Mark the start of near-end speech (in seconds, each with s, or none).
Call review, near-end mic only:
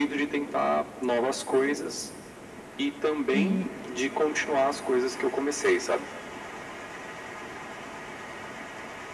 3.3 s